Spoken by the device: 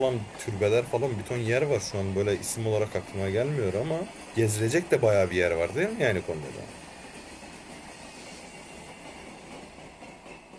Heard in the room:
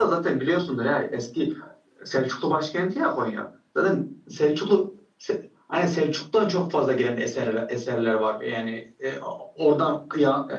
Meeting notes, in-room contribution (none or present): present